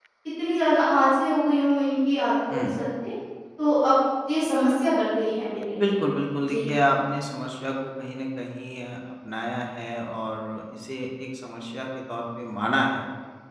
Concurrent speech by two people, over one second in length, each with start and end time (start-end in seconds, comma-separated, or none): none